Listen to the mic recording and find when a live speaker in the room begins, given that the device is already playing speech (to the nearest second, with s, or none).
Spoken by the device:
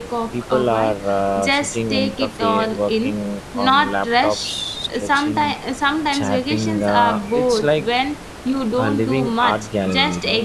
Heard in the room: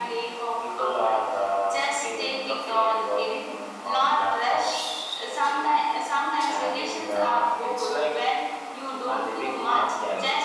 none